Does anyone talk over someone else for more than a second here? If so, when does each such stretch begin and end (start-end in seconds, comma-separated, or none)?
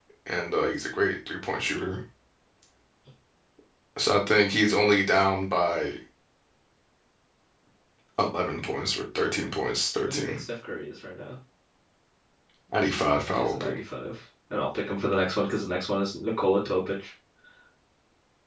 none